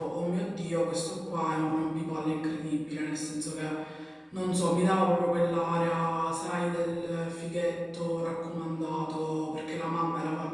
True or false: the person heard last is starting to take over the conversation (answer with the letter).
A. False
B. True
A